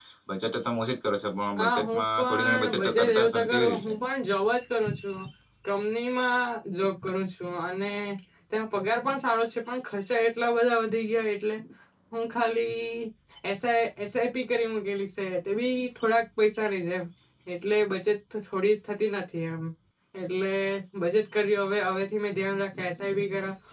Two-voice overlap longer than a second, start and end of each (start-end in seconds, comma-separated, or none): 1.6-3.9